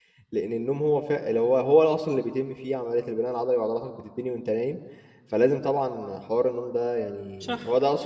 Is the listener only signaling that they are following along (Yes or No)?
Yes